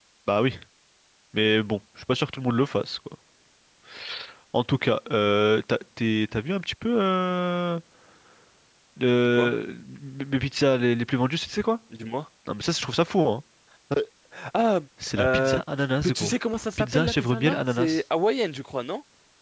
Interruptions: present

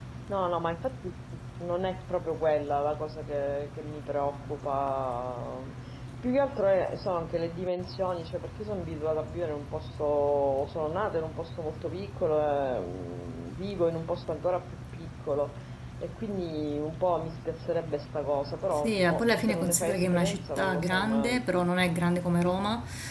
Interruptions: present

